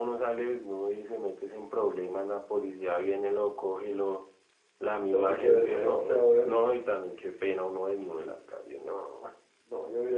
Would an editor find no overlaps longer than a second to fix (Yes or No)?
No